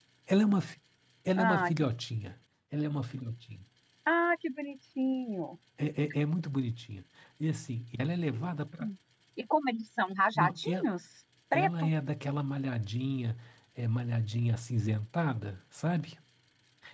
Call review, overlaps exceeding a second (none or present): none